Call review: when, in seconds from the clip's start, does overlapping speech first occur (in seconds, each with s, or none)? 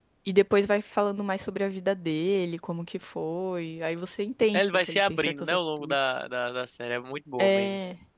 4.5 s